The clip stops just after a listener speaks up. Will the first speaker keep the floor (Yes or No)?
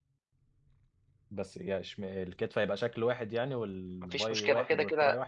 No